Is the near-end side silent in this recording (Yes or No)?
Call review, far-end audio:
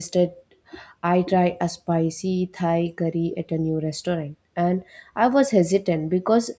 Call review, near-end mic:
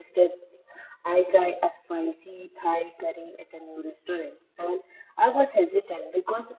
Yes